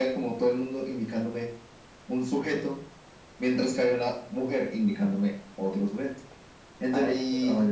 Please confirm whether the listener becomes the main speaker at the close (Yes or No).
No